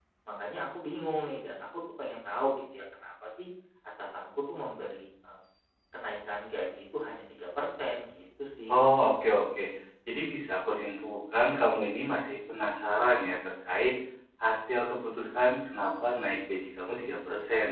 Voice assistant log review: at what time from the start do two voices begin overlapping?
none

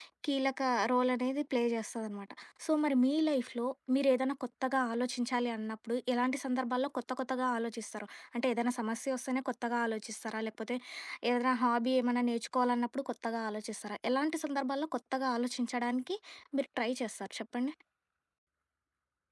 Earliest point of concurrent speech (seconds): none

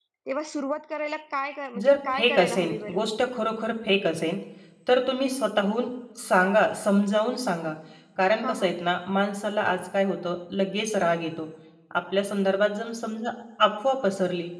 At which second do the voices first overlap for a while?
1.8 s

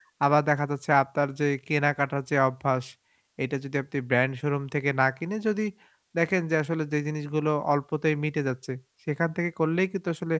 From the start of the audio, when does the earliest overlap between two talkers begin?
none

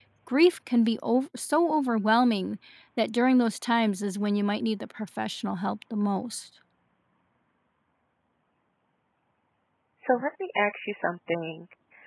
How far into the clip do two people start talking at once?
none

